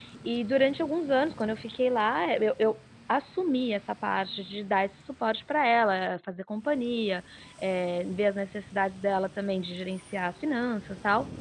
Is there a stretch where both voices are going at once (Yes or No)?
No